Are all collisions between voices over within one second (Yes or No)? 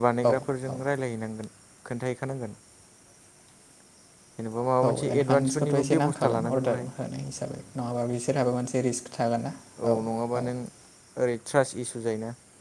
No